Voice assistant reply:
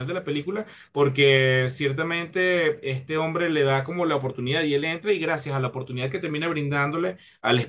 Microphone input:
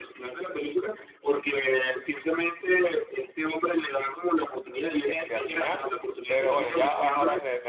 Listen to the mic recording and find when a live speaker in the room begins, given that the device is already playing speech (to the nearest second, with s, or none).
5 s